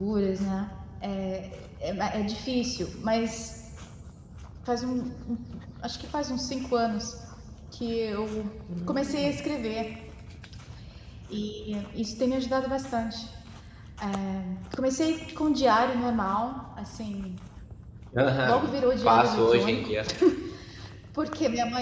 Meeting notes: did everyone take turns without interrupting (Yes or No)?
No